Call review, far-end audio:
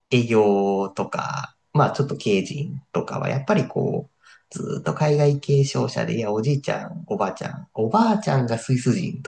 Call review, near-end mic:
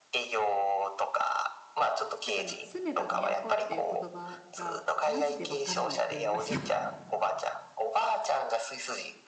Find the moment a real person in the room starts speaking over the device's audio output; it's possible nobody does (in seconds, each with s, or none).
2.2 s